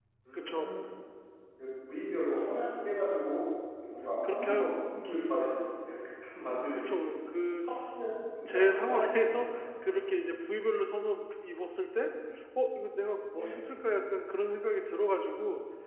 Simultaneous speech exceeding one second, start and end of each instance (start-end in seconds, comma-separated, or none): 8.5-10.1